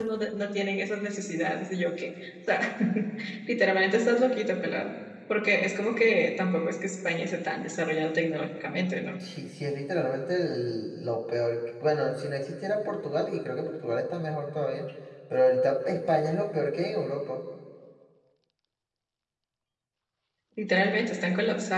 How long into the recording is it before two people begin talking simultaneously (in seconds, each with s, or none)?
none